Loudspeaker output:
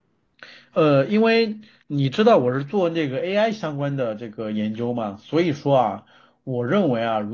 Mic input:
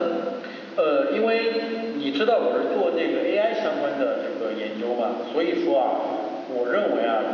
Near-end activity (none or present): none